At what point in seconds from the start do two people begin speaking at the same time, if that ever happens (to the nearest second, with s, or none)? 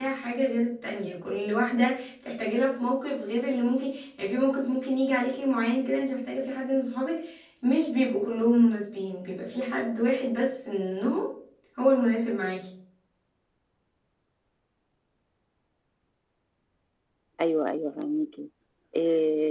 none